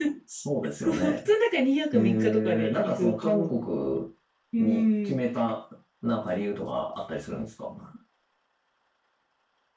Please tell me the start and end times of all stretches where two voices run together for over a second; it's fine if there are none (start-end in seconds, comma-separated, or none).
1.9-3.6